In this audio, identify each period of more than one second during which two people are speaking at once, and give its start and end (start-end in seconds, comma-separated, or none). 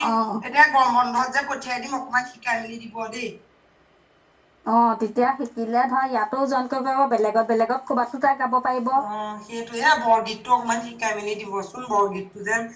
none